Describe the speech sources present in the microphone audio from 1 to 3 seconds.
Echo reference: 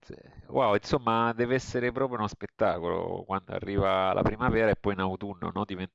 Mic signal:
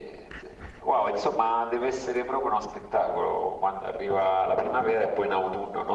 echo only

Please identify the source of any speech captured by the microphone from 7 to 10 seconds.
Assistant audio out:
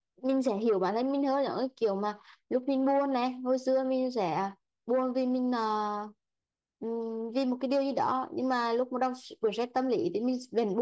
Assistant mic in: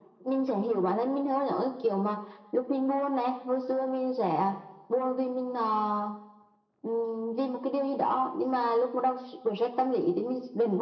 echo only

